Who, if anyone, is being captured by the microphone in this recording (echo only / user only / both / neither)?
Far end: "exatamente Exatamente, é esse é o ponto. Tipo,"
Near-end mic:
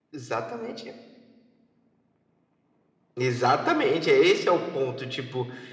echo only